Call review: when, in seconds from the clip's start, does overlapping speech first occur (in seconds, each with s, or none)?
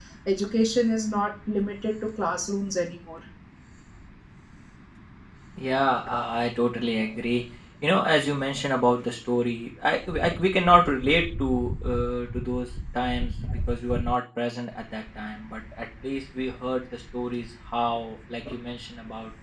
none